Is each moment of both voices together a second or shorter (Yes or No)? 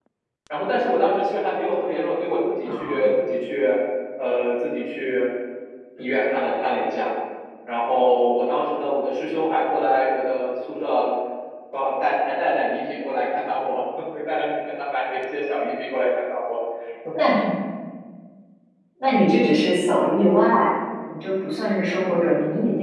Yes